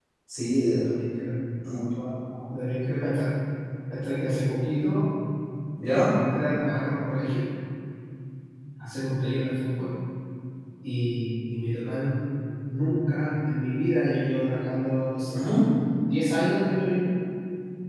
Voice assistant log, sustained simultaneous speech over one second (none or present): none